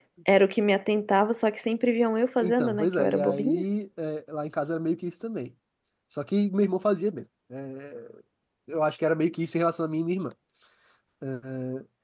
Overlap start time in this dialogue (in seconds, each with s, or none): 2.4 s